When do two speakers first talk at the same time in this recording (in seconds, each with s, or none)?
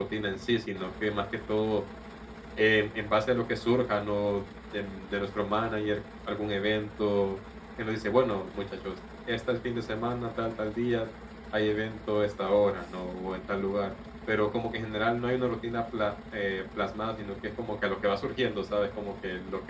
none